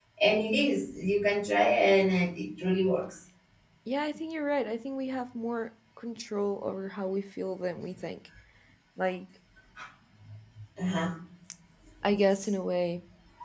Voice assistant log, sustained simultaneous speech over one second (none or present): none